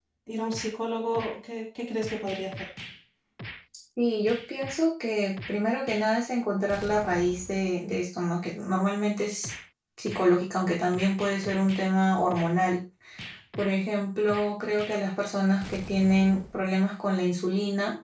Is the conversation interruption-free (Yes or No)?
Yes